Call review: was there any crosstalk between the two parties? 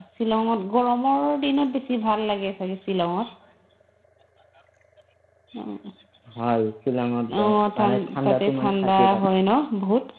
Yes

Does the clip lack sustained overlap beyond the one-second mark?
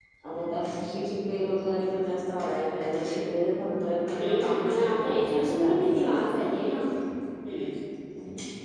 No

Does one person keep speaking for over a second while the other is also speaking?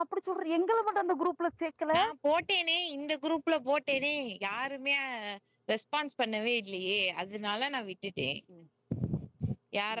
No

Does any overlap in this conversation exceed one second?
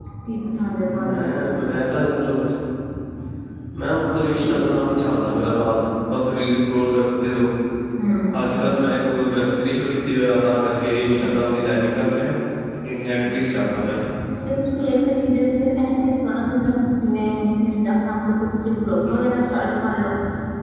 No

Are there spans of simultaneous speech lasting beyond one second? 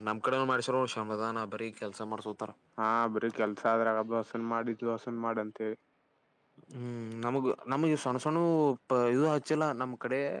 No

